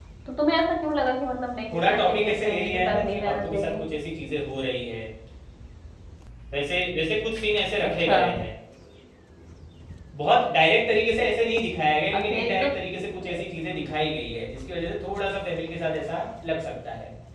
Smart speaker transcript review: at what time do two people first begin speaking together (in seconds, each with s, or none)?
1.7 s